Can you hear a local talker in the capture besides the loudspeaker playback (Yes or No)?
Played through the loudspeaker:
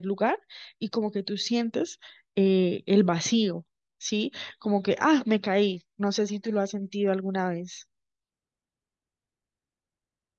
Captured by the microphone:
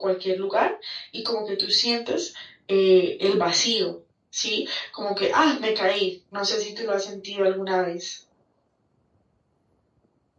No